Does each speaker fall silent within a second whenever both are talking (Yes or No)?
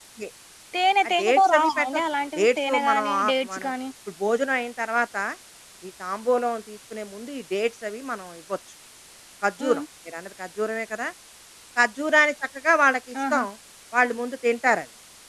No